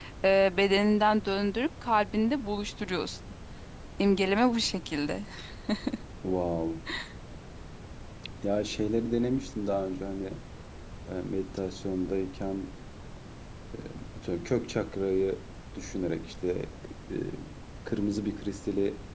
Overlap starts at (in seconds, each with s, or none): none